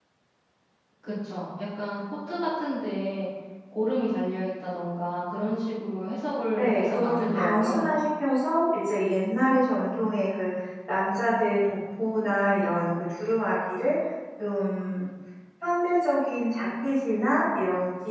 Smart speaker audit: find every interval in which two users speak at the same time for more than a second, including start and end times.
6.6-7.9

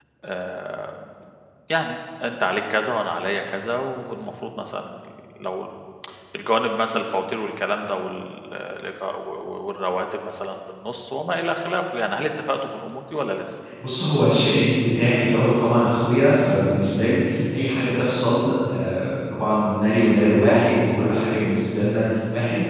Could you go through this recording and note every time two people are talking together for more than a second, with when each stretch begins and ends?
none

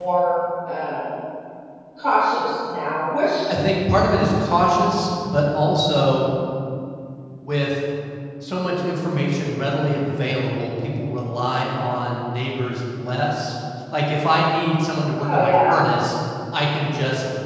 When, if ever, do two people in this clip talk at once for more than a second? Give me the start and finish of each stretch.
none

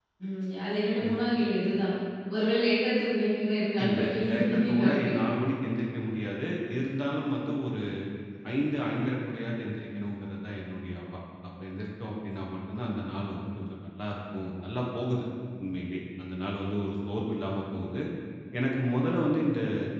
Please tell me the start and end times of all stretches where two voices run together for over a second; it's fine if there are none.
3.8-5.2

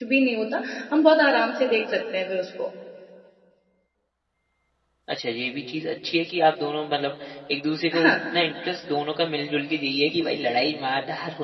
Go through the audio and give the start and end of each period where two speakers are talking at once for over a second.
none

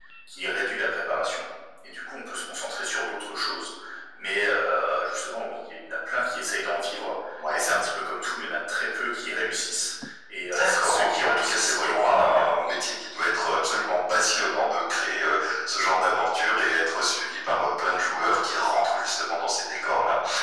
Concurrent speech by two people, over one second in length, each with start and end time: 10.5-12.7

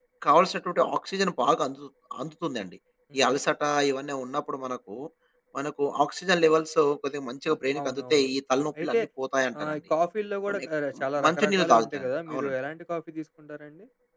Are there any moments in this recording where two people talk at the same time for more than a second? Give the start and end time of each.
11.3-12.5

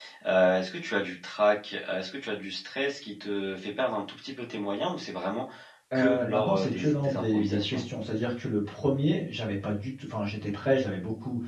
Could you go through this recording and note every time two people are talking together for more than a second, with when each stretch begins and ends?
5.9-7.8

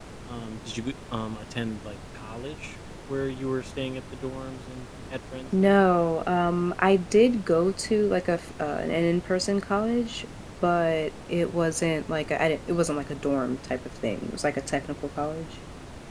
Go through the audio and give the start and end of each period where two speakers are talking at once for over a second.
none

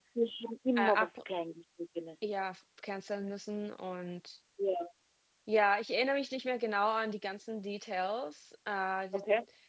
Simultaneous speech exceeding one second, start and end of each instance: none

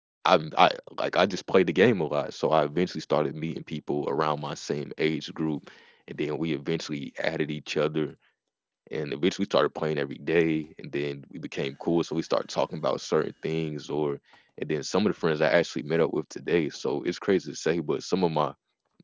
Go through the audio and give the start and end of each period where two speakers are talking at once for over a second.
none

